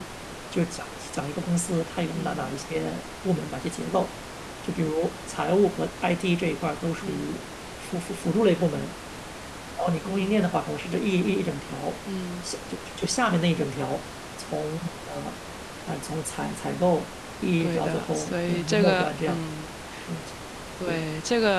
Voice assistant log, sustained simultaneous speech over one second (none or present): present